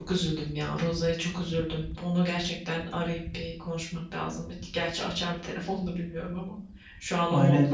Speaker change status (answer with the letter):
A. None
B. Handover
B